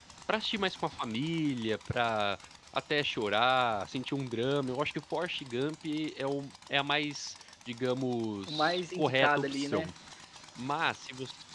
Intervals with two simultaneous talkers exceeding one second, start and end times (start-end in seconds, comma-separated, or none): 8.5-9.9